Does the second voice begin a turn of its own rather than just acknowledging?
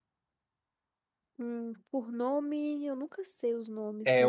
Yes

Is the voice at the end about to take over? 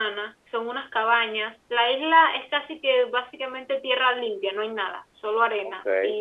No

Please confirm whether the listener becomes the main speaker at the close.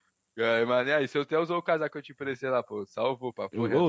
Yes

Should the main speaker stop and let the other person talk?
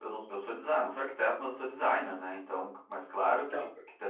No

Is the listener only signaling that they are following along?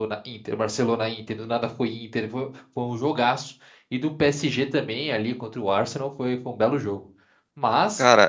Yes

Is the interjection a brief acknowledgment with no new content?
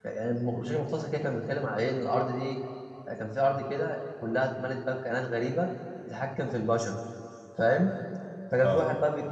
Yes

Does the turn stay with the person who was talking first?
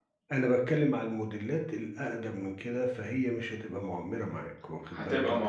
No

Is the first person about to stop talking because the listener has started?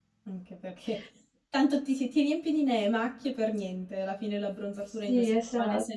Yes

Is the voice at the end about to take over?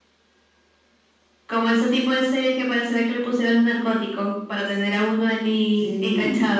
Yes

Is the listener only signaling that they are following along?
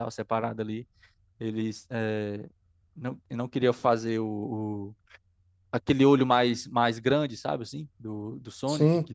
Yes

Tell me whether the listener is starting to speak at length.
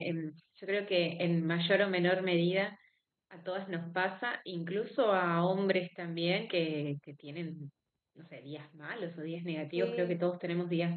No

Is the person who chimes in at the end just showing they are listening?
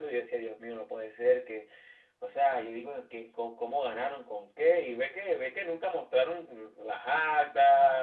No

